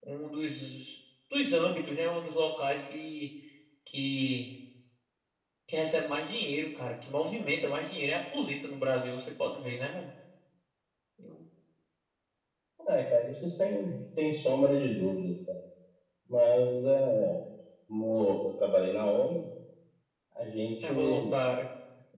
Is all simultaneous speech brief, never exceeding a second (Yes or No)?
Yes